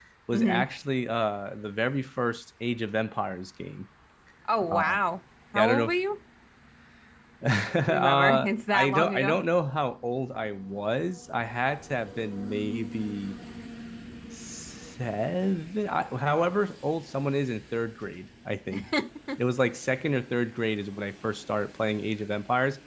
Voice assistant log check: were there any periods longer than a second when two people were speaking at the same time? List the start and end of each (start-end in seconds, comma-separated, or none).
7.9-9.4